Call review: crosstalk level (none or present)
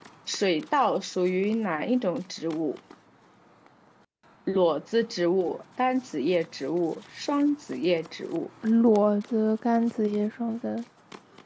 none